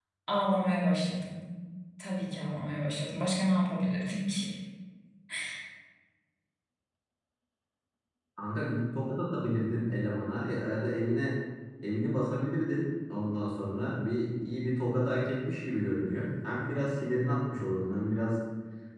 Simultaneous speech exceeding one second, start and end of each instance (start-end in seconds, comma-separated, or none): none